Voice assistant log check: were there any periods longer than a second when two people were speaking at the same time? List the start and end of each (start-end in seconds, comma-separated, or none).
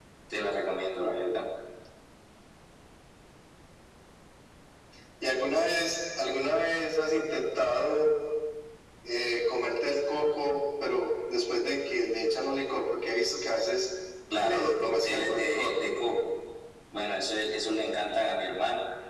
14.4-15.7